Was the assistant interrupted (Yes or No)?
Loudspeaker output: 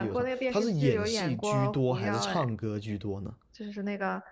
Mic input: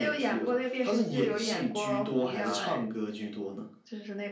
No